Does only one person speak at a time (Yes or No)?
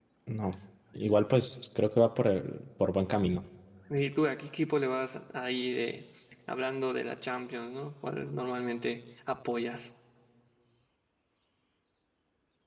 Yes